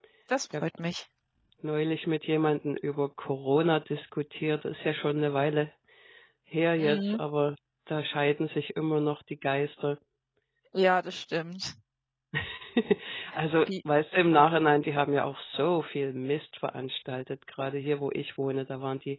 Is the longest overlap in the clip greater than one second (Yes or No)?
No